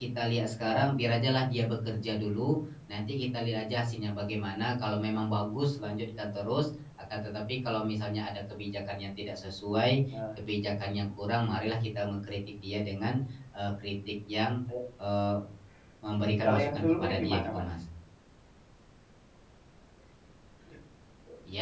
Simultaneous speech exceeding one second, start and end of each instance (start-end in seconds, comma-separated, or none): 16.4-17.7